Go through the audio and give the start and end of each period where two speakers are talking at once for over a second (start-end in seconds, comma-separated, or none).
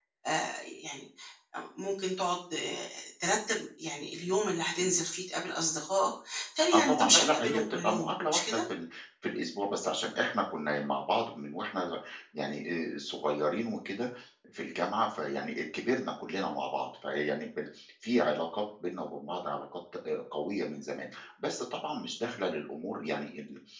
6.7-8.6